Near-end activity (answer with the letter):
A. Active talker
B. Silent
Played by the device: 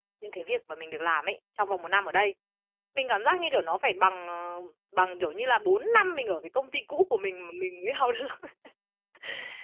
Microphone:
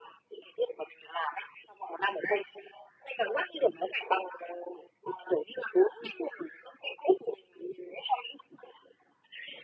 B